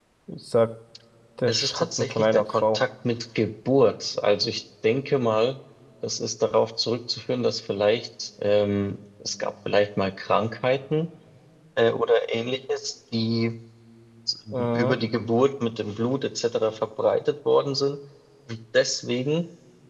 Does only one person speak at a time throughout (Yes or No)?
No